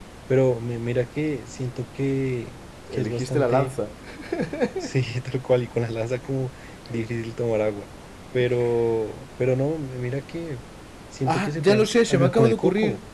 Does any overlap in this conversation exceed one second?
Yes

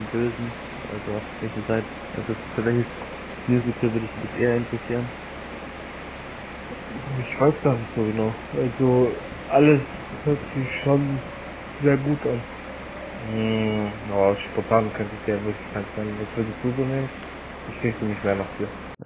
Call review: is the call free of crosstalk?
Yes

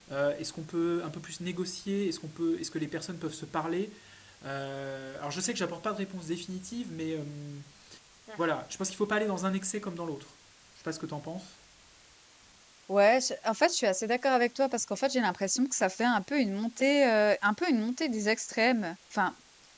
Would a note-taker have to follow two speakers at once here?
No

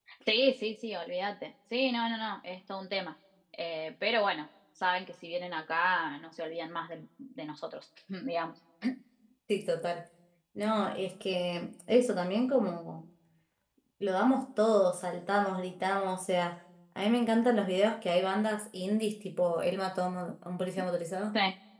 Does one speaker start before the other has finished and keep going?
No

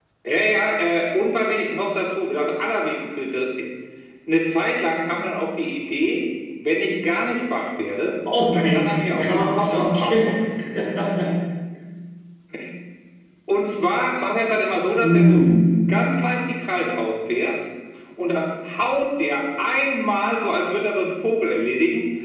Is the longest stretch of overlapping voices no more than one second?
No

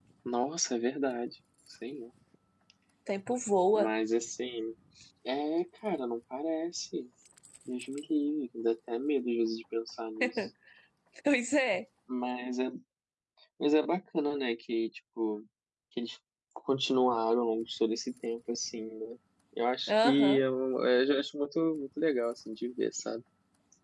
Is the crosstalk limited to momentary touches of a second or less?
Yes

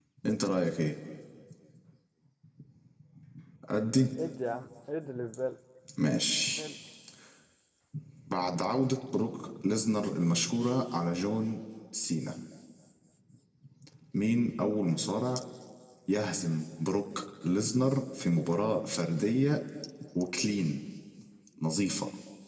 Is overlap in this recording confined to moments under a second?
Yes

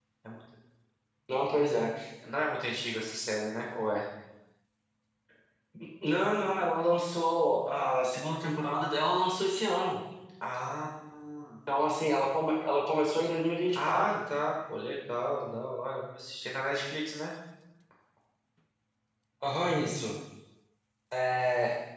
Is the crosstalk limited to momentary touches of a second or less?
Yes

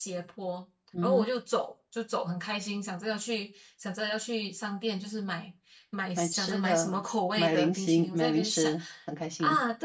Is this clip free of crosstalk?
No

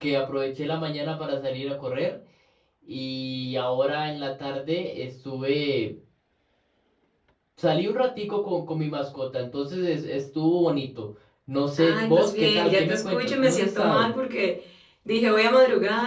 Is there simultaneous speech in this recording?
Yes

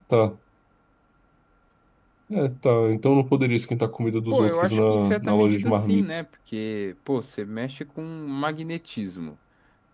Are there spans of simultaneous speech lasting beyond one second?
Yes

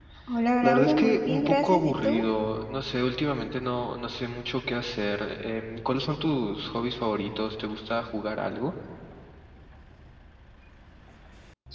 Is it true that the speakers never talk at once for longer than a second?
No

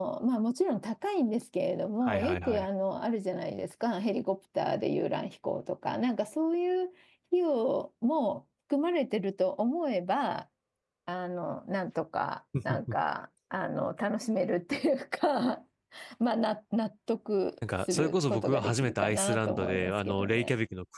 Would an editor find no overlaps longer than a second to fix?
No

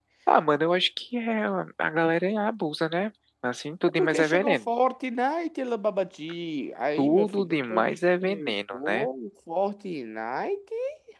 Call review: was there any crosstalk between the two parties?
Yes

